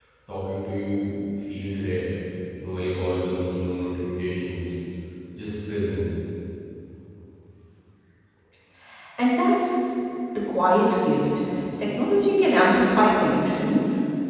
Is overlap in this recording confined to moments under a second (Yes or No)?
Yes